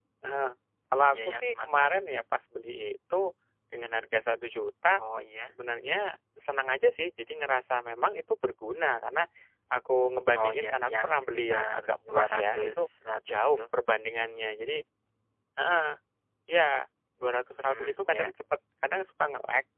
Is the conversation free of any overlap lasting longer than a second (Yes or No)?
No